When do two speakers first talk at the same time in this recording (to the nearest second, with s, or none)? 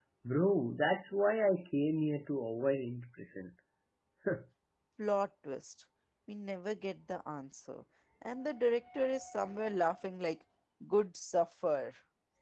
none